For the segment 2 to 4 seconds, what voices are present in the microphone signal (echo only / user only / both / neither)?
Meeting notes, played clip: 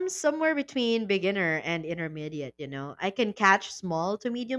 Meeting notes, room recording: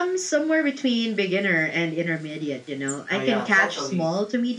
both